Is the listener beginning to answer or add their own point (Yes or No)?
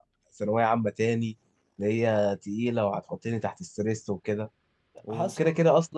No